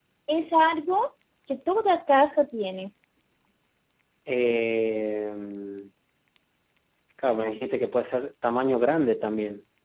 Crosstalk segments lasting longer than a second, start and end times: none

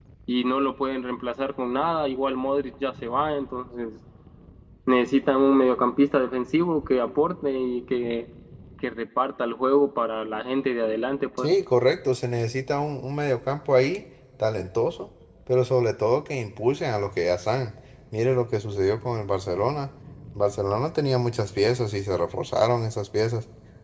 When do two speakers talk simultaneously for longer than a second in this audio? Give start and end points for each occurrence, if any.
none

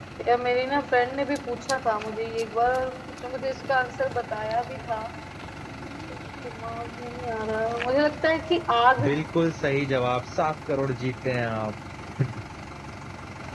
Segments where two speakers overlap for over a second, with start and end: none

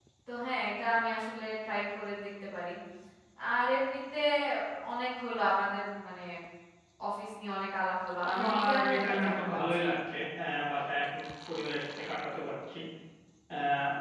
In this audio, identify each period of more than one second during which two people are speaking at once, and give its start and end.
8.3-9.8

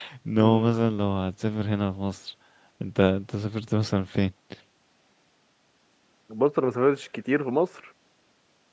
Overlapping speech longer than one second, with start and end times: none

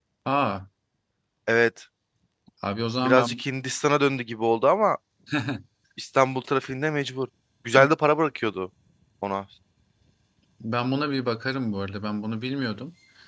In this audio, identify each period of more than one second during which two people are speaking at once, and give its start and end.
none

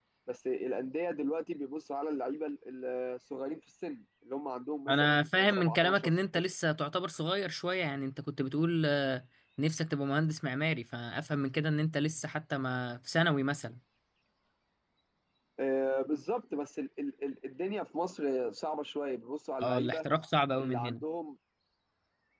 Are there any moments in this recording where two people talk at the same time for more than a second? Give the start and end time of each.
4.9-6.4

